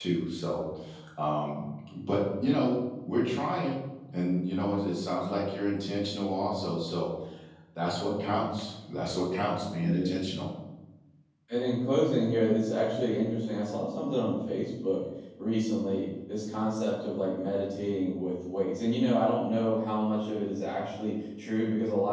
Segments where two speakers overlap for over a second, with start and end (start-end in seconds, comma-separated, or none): none